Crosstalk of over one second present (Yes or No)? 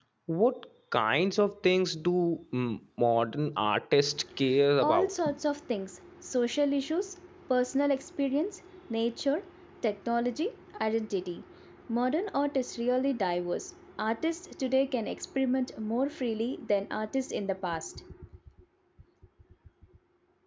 No